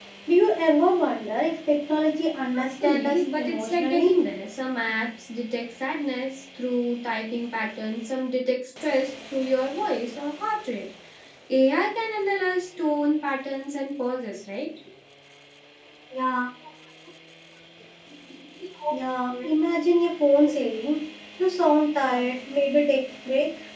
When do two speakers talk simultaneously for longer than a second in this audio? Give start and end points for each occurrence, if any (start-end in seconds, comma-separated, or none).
2.6-4.1